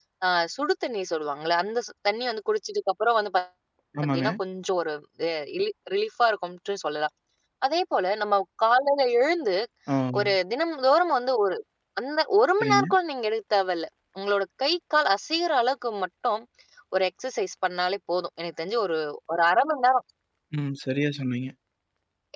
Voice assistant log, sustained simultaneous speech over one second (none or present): none